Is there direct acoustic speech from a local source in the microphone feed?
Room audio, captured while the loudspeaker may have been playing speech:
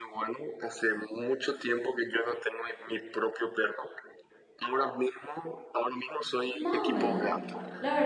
Yes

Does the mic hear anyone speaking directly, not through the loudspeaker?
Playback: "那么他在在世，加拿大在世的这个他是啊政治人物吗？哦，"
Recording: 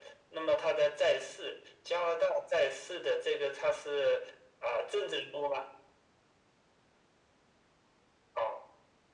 No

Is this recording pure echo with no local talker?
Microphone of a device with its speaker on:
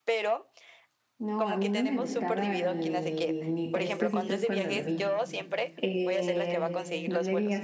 No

